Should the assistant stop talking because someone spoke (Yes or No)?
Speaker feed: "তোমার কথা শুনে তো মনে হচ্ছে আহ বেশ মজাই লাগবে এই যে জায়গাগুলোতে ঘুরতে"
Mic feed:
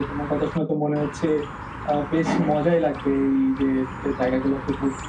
No